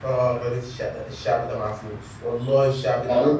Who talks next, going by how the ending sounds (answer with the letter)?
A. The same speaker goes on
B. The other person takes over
B